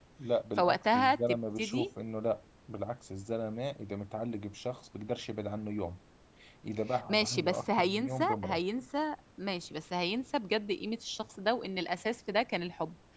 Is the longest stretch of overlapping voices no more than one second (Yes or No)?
No